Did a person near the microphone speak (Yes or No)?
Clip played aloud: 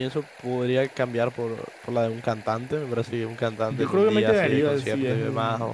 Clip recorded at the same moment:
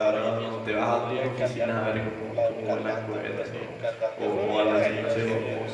Yes